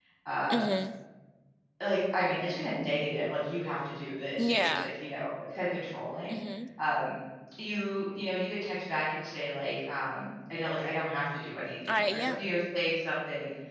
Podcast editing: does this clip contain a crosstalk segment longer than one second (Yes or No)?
No